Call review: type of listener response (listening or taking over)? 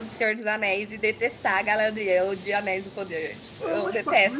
taking over